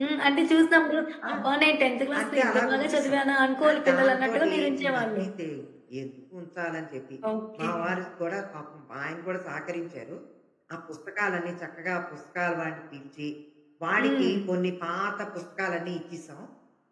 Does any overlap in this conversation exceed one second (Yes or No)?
Yes